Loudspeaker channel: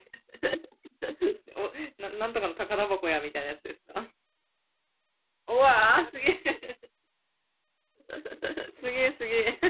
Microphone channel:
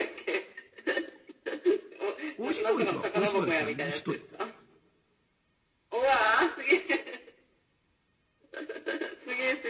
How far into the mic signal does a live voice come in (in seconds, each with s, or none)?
2.4 s